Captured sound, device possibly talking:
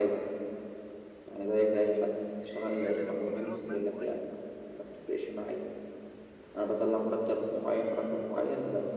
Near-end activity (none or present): present